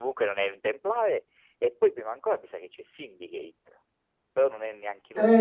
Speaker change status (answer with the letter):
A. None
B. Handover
B